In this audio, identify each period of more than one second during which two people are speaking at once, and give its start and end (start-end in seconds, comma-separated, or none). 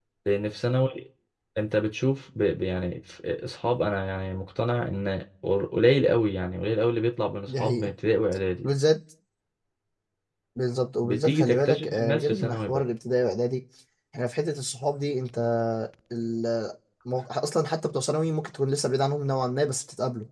11.0-12.8